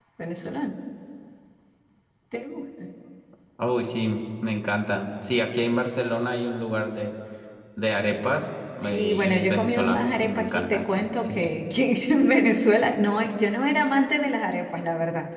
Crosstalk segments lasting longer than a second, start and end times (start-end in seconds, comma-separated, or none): 8.8-11.6